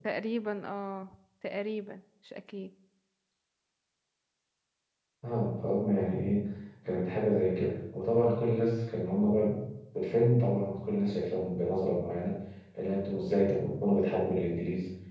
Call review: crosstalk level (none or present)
none